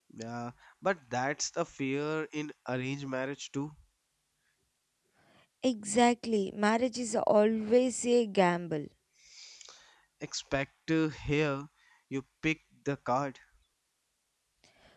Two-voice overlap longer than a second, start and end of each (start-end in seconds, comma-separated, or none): none